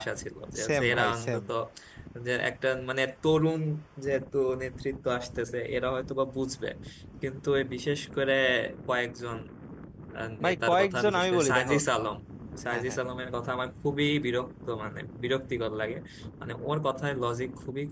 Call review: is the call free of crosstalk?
No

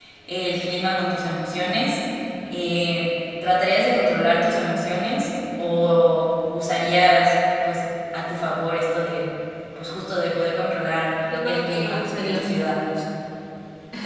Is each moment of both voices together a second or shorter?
No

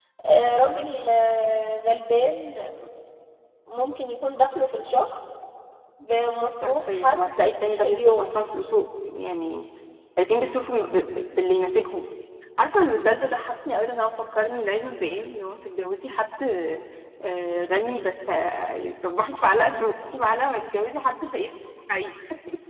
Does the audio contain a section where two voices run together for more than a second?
Yes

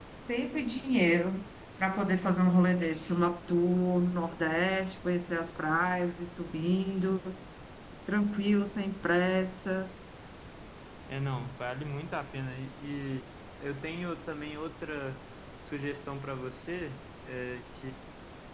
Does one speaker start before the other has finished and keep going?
No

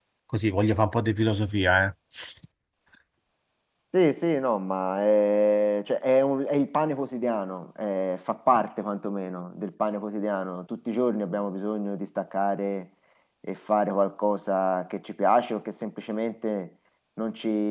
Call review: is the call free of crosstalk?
Yes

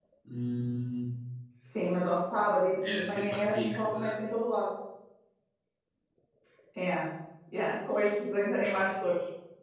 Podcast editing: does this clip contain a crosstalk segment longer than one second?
Yes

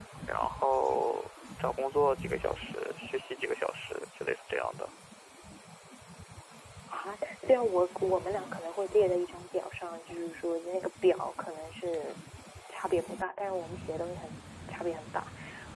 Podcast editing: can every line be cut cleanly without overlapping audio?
Yes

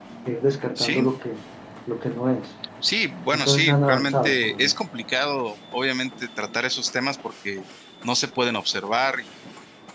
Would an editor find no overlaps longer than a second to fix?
No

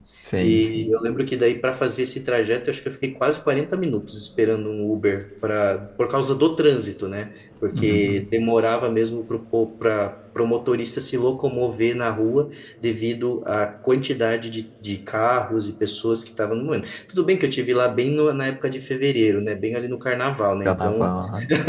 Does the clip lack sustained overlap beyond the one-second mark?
Yes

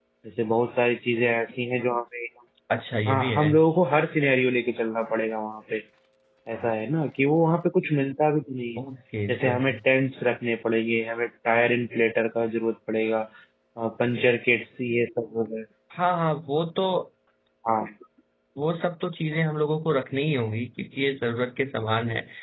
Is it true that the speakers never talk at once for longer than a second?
Yes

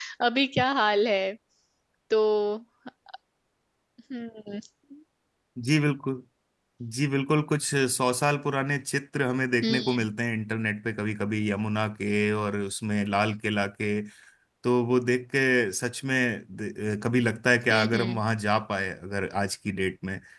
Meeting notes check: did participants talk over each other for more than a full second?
No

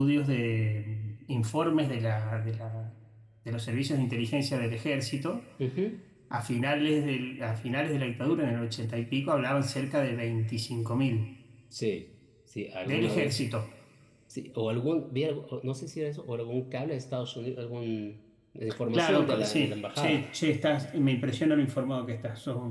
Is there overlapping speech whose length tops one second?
Yes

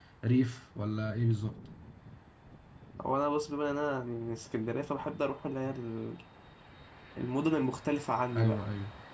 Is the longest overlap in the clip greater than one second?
No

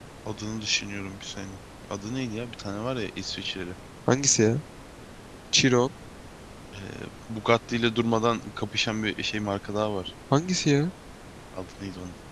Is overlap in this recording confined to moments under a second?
Yes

